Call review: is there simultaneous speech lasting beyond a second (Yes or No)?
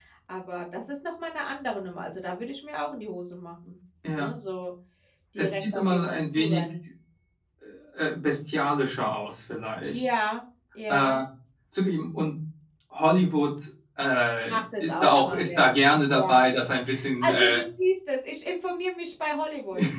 Yes